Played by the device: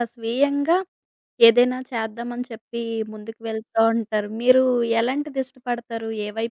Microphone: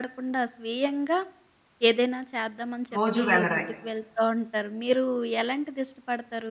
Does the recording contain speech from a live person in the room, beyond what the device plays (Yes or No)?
Yes